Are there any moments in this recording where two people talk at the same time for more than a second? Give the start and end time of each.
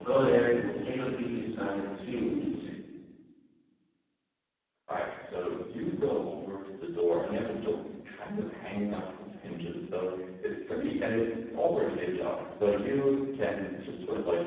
none

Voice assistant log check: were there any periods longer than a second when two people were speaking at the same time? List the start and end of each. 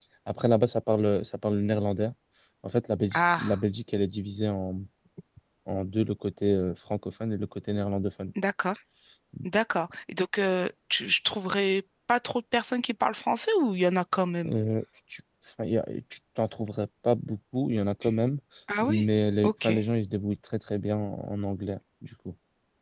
none

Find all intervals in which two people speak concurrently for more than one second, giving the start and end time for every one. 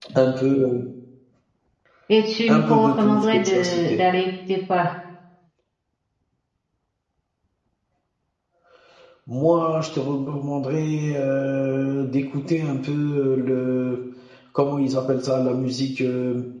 2.5-4.1

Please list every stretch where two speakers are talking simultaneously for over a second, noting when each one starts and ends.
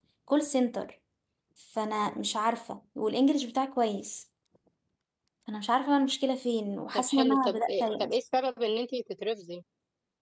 6.9-8.2

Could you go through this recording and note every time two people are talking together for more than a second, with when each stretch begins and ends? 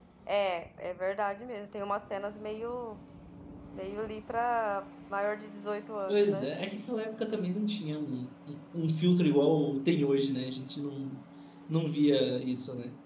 none

